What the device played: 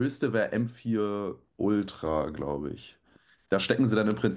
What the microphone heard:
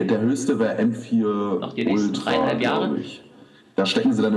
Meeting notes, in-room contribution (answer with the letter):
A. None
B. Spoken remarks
B